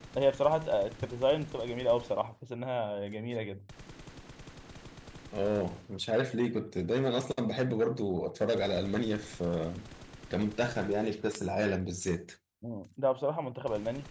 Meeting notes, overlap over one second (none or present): none